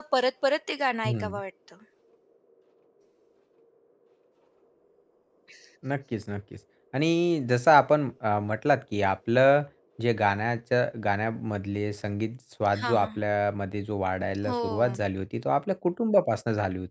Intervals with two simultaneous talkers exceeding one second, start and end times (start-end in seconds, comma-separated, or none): none